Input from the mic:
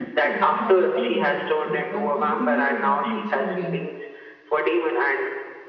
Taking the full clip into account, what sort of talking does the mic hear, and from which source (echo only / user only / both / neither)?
both